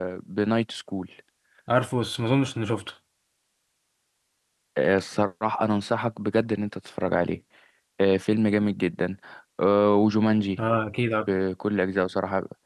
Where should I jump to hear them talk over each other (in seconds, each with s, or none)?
none